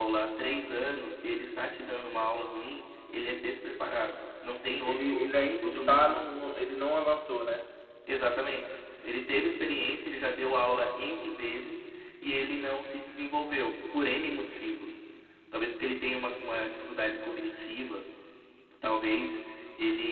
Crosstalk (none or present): present